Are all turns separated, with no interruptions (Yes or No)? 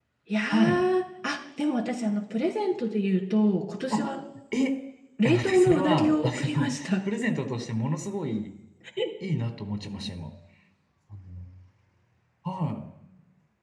No